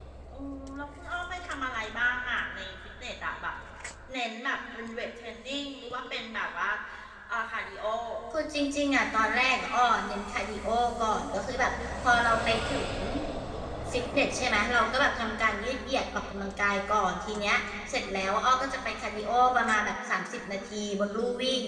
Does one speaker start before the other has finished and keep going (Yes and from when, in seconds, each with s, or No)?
No